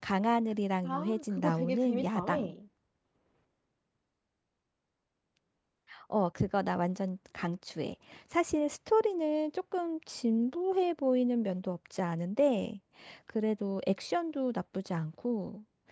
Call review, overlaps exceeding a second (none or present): present